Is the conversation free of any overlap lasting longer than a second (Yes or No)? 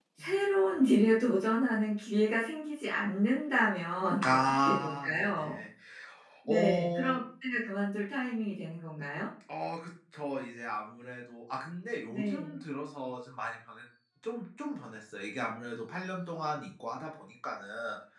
No